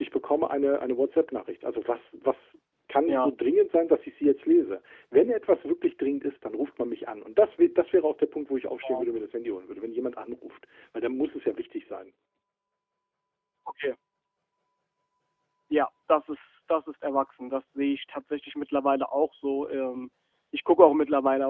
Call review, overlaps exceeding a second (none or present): none